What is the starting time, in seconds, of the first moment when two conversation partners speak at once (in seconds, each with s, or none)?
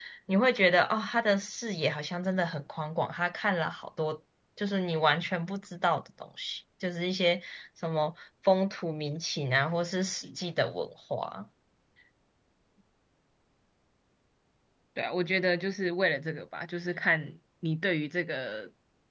none